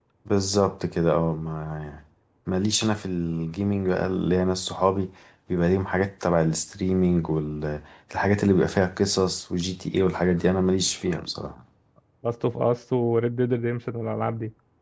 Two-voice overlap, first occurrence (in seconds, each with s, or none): none